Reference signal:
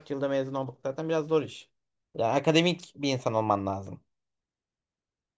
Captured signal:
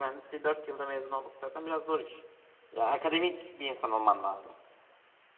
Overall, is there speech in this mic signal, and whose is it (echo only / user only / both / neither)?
echo only